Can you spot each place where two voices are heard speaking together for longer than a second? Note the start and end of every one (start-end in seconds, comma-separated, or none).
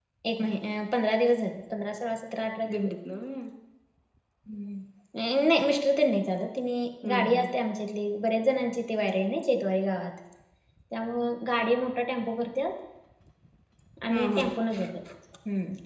none